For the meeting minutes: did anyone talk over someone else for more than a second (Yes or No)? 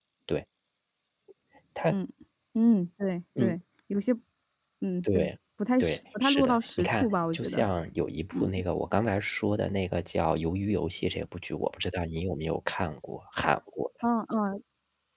Yes